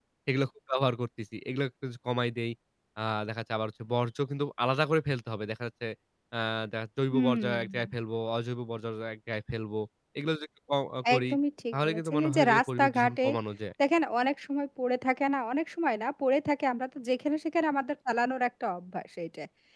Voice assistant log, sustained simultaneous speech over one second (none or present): present